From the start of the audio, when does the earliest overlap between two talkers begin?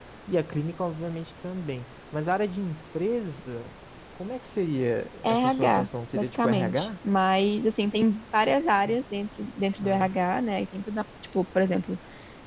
5.2 s

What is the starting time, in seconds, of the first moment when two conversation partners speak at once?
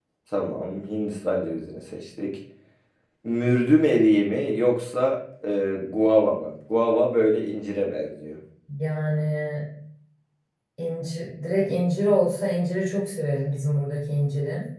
none

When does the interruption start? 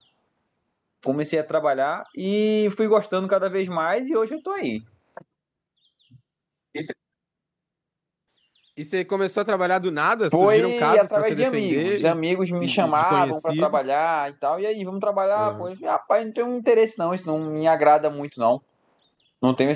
10.3 s

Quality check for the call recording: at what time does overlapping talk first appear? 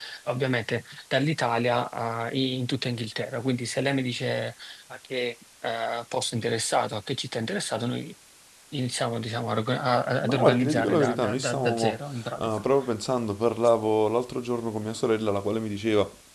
10.2 s

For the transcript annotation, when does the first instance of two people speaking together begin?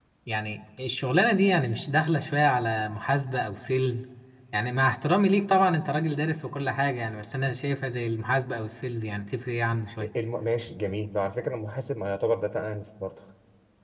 none

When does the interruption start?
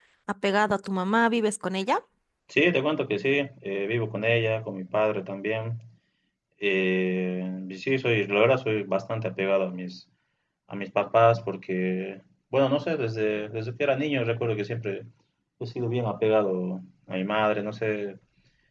none

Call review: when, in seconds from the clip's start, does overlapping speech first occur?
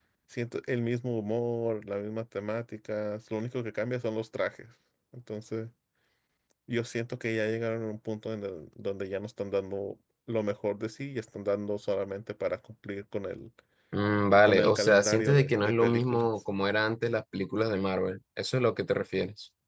14.4 s

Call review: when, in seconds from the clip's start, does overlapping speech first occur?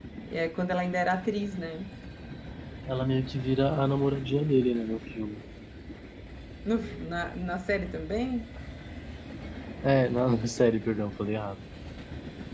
none

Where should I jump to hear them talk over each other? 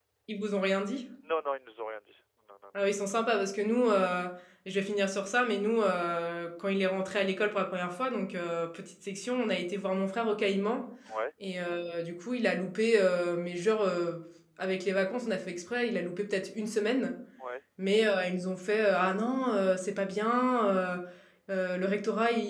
none

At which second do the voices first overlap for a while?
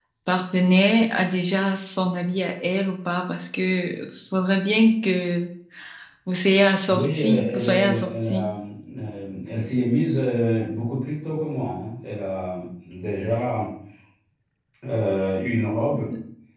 6.9 s

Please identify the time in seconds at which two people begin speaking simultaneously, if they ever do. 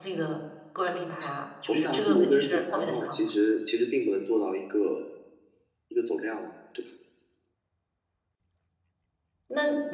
1.7 s

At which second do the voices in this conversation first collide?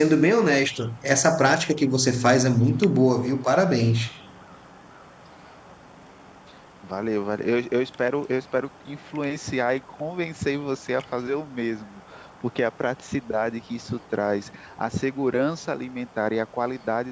none

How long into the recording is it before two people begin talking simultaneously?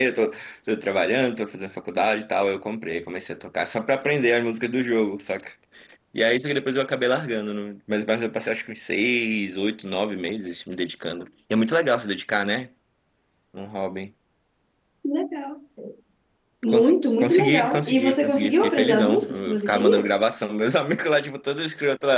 16.7 s

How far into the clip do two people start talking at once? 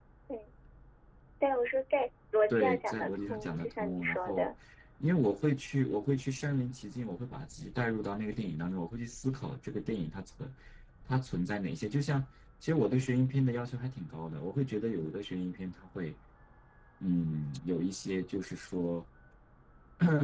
2.5 s

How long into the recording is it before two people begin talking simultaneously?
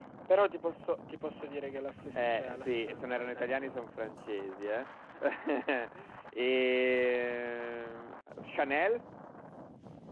2.1 s

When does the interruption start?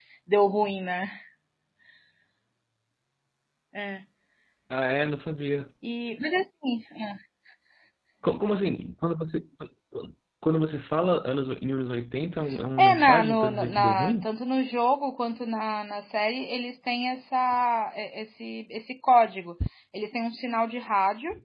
12.8 s

